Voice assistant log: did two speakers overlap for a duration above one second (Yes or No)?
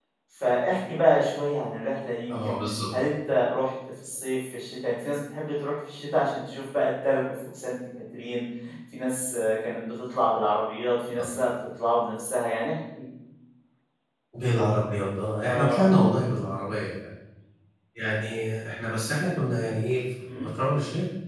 No